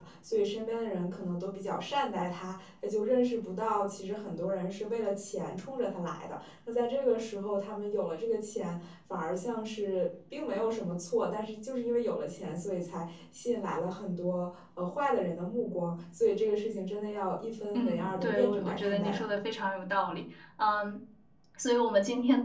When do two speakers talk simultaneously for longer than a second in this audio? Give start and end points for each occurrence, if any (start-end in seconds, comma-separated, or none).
17.7-19.2